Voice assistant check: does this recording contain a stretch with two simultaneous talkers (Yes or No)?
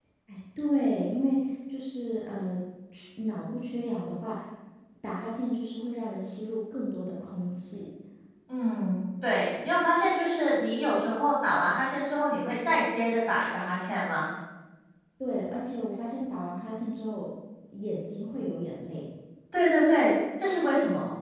No